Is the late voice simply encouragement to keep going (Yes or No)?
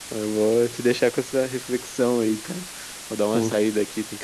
Yes